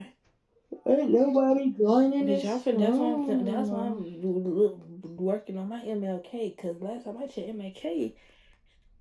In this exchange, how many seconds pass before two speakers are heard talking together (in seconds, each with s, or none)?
2.2 s